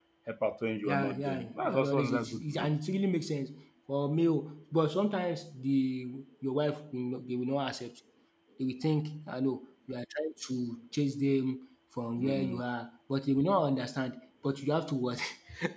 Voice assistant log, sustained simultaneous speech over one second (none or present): present